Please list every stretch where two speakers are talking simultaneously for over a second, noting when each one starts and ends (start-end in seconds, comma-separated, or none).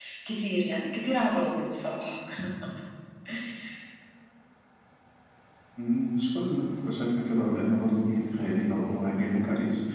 none